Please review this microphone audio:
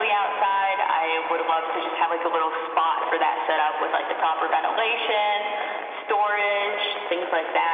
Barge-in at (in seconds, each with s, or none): none